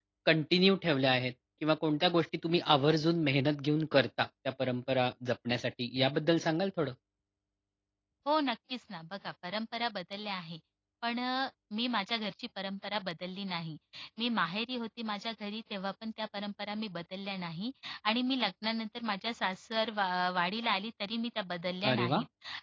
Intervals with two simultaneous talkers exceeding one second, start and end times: none

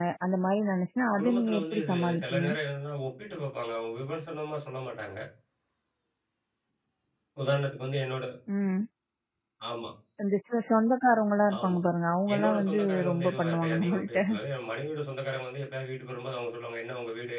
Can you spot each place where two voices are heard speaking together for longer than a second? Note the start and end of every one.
1.2-2.4, 12.3-14.2

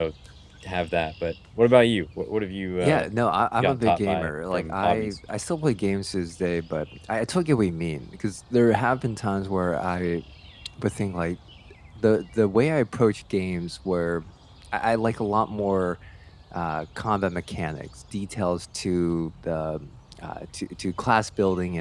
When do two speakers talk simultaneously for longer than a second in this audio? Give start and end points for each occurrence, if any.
3.6-5.2

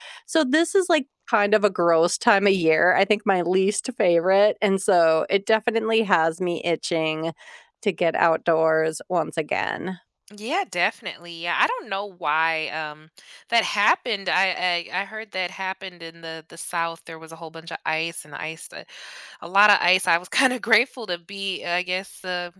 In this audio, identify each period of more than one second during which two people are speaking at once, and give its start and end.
none

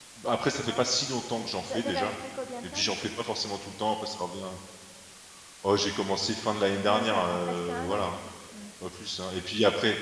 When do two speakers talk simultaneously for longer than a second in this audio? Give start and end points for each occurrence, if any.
6.8-8.2

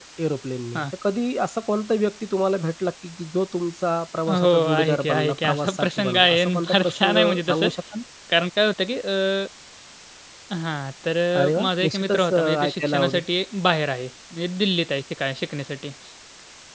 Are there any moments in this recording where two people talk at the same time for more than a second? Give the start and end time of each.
4.3-7.7, 11.4-13.2

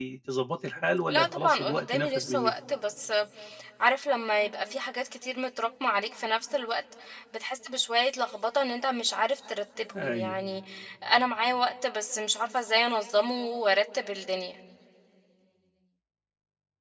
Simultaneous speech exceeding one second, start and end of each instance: 1.1-2.5

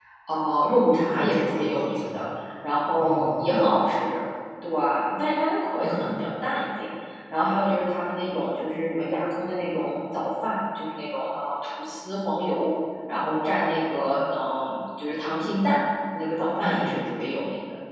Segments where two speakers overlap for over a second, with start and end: 0.9-2.2

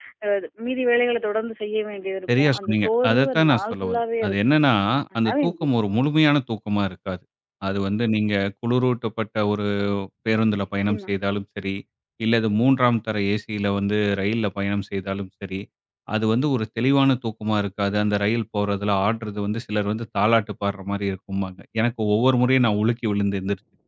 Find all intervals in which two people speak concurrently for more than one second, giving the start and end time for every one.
2.4-4.4

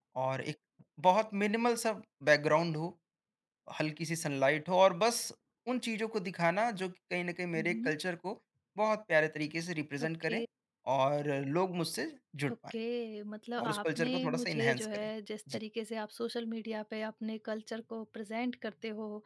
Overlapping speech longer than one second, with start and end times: 13.6-15.1

